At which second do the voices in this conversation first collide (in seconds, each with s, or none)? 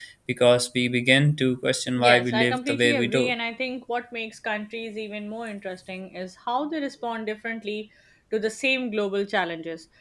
2.0 s